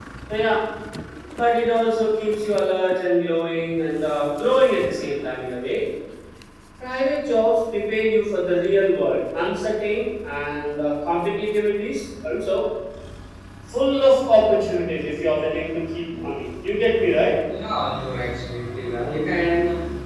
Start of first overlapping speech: none

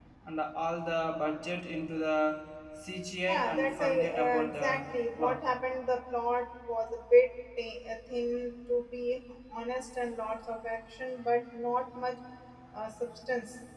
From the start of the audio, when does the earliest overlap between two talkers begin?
3 s

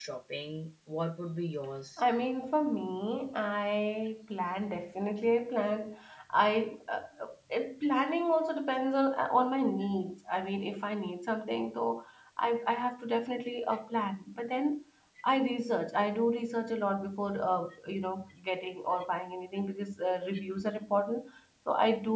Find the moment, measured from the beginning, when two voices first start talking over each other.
none

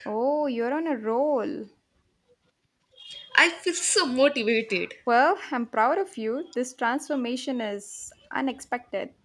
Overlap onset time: none

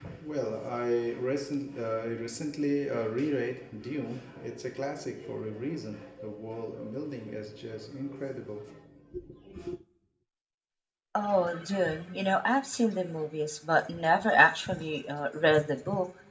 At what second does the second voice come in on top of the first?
none

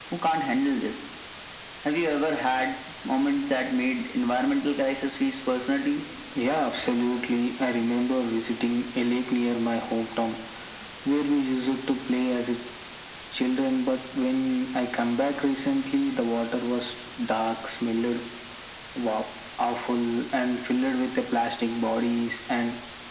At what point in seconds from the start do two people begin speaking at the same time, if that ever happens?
none

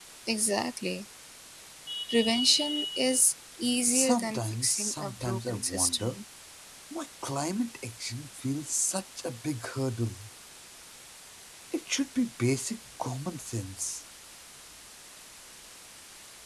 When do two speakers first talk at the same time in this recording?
4 s

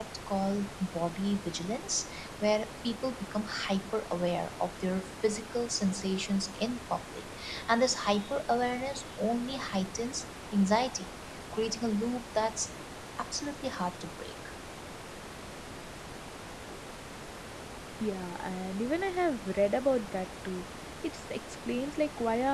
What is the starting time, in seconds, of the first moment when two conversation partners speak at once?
none

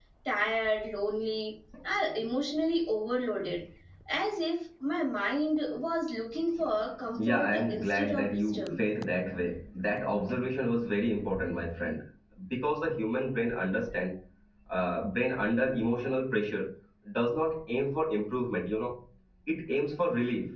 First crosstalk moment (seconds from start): 7 s

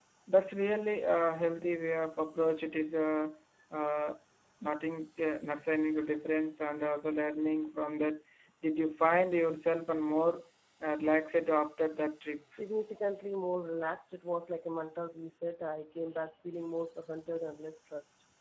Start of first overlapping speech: none

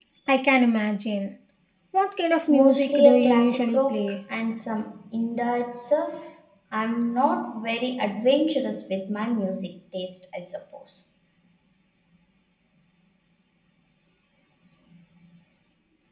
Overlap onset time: 2 s

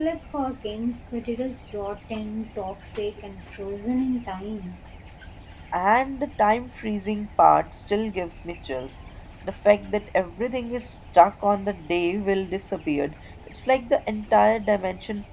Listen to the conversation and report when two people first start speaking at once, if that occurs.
none

